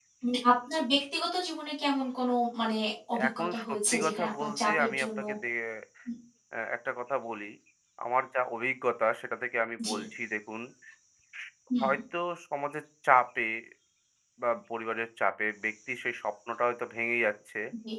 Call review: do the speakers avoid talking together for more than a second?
No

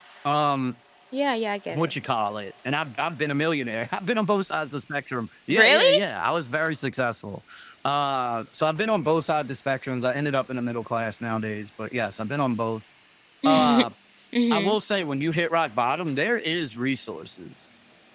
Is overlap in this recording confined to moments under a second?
Yes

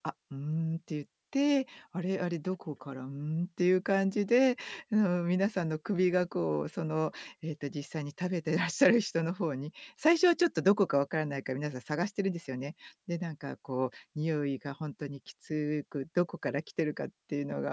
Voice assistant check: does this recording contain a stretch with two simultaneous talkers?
No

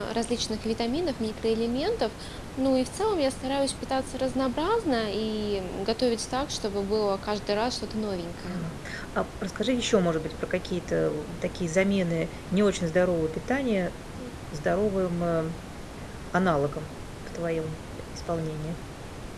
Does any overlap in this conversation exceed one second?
No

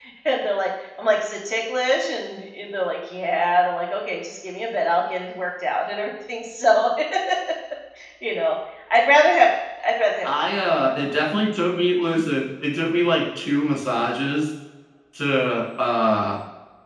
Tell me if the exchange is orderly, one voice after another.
Yes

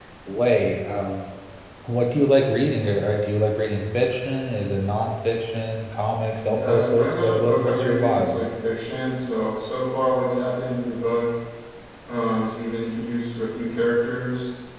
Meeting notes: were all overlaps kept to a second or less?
No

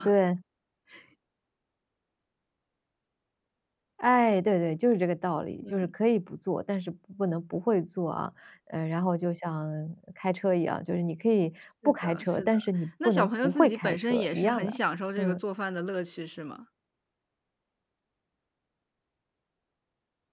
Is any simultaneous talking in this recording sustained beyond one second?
Yes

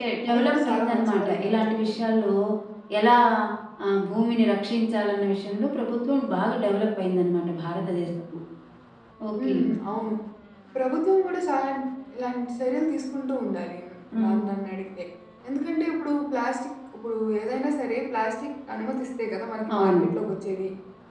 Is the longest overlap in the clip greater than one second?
Yes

